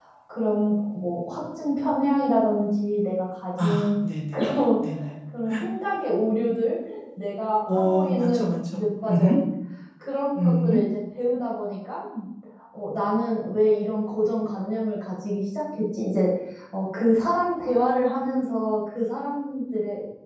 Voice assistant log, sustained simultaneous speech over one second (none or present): present